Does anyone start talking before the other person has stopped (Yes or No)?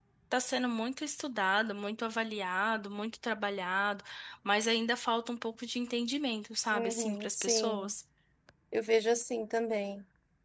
Yes